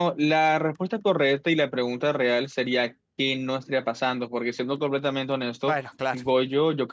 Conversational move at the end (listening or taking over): listening